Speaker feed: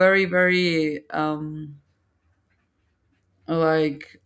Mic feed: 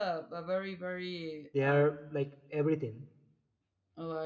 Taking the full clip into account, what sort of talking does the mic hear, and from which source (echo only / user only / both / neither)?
both